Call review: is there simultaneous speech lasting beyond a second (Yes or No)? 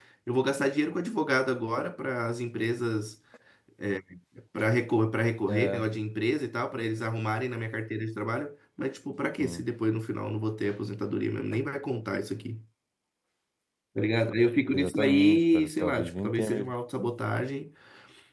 Yes